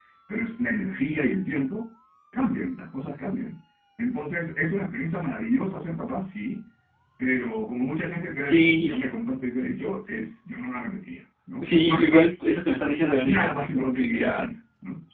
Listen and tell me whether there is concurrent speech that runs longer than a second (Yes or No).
Yes